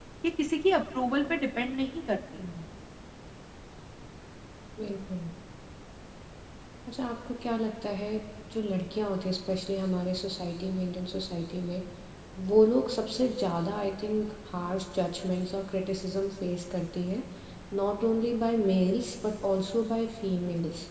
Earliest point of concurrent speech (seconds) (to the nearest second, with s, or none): none